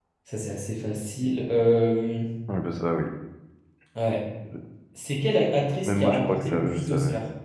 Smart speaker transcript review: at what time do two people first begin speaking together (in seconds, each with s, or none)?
5.9 s